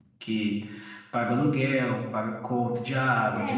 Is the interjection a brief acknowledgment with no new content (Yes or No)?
No